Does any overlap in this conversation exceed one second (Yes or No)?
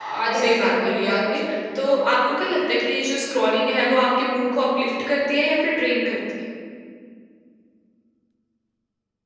Yes